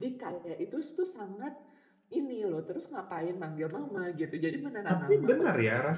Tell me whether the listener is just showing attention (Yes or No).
No